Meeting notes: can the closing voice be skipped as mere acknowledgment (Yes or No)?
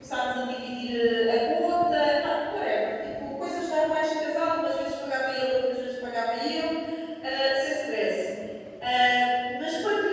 Yes